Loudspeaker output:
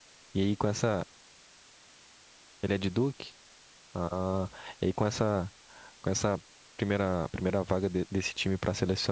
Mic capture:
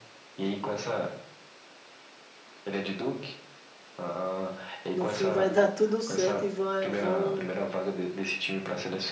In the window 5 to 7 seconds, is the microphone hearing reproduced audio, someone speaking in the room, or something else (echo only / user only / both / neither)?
both